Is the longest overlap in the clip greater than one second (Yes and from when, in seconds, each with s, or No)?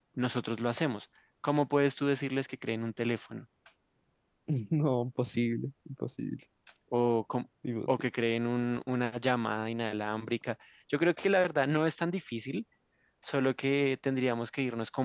No